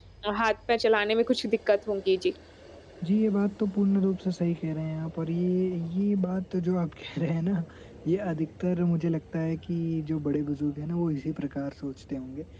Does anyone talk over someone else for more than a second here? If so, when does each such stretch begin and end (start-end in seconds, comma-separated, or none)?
none